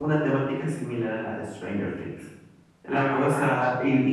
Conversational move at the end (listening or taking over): listening